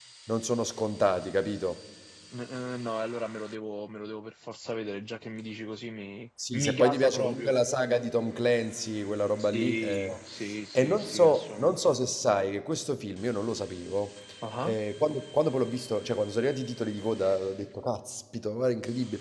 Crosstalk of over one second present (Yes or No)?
Yes